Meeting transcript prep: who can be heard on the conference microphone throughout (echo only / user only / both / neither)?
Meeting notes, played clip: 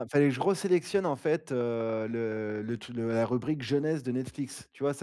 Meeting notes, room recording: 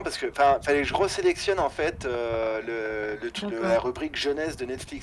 both